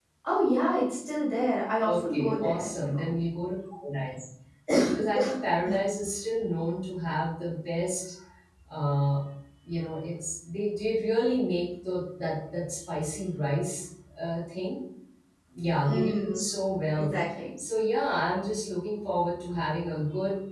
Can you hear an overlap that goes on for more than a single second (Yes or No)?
Yes